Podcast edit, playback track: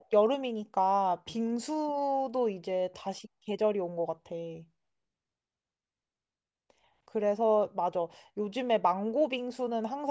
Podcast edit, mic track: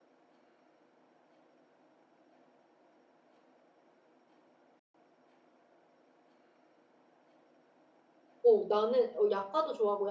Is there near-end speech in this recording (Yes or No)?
Yes